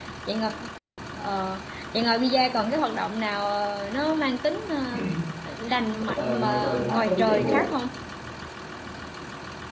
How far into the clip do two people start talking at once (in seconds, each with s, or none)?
6.2 s